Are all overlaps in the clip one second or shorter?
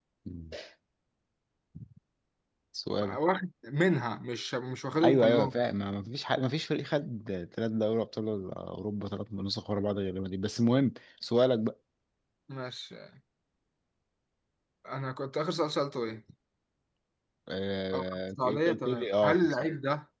No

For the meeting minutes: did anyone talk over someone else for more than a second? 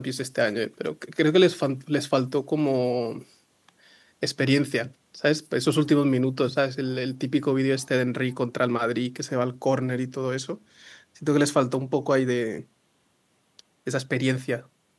No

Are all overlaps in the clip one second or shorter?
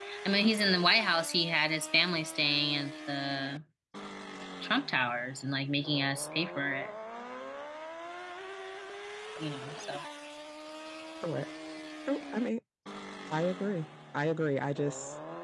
Yes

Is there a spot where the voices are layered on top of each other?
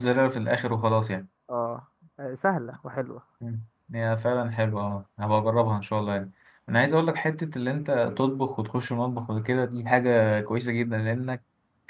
No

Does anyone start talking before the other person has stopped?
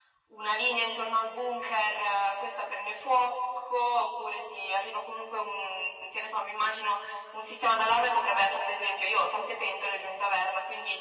No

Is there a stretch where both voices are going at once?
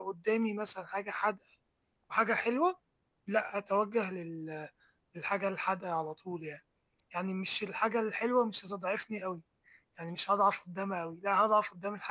No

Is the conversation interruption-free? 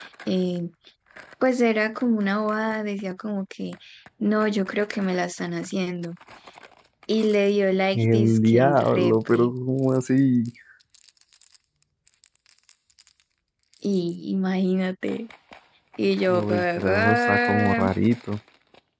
No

